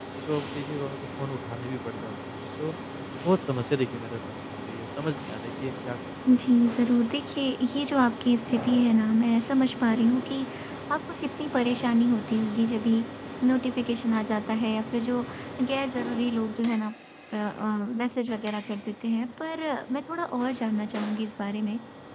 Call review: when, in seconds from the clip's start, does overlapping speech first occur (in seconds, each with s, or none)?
none